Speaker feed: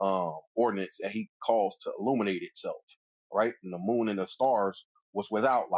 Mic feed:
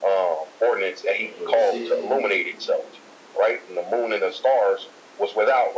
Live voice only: and verse 60,

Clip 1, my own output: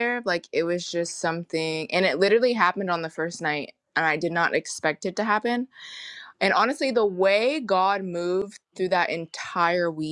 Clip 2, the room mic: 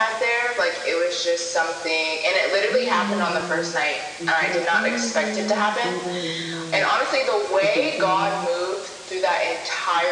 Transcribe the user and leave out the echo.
And the light I from you in Mars. Okay, you can hear me.

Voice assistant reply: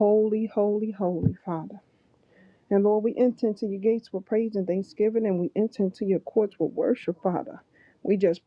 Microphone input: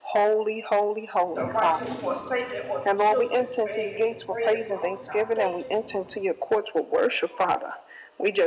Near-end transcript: the righteous forsaken or the children's begging for bread, Father God. Thank you, Lord,

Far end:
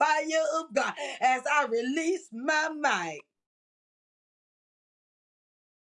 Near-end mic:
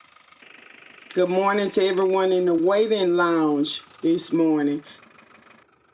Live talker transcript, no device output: Good morning to everyone in the waiting lounge this morning.

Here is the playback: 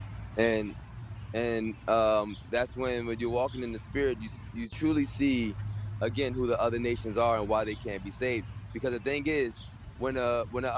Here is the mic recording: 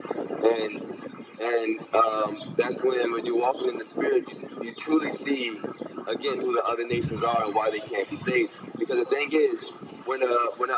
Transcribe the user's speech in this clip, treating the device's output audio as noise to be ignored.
none

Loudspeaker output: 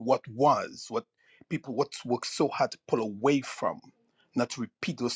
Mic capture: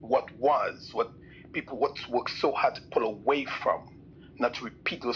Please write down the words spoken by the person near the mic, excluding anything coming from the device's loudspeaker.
none

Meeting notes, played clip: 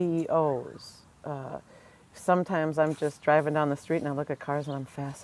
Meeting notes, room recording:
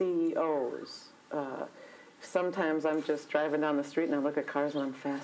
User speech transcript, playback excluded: none

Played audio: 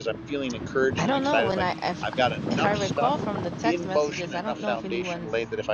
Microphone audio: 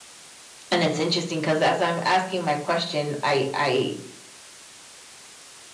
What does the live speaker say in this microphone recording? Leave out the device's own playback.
and it's interesting because as I'm asking my question, I I

